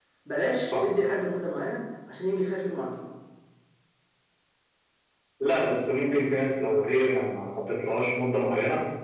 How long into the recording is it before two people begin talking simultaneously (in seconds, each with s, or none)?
none